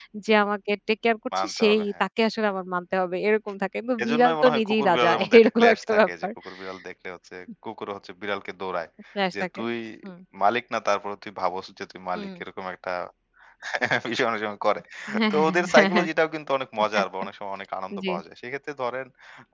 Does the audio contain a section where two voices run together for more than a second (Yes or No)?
Yes